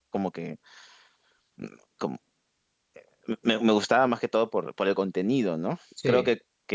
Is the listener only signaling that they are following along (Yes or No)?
Yes